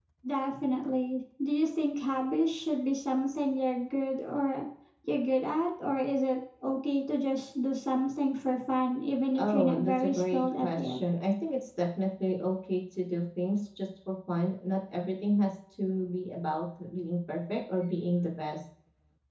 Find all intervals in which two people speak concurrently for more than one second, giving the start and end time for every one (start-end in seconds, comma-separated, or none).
9.4-11.0